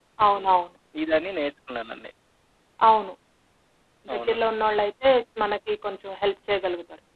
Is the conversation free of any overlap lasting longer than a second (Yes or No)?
Yes